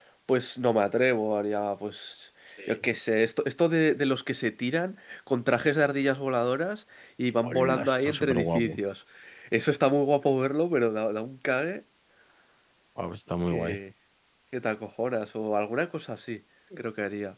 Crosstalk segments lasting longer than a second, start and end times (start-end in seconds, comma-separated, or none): 7.4-8.8